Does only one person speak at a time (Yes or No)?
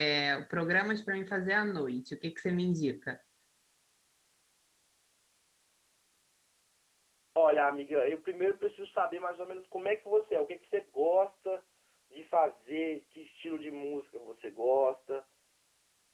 Yes